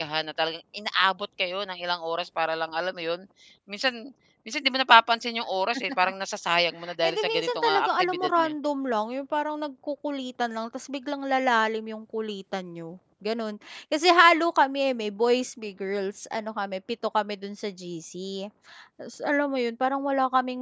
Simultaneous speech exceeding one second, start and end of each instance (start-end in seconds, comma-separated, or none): 7.0-8.5